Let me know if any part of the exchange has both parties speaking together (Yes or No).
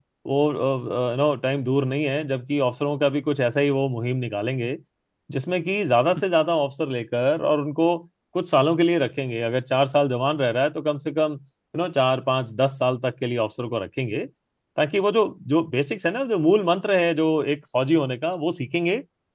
No